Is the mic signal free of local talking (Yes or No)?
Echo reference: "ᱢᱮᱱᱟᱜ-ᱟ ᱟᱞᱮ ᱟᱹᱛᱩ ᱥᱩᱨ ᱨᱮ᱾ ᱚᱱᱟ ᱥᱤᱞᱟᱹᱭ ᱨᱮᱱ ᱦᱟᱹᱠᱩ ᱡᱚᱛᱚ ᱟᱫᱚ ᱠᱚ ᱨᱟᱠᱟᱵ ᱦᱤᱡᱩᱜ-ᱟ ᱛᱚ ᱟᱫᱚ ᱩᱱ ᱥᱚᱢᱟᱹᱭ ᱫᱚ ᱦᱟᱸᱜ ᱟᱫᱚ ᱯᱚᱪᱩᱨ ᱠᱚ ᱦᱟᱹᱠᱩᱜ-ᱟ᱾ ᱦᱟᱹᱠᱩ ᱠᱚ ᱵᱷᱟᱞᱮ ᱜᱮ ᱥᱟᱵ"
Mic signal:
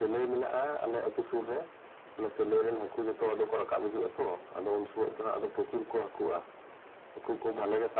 Yes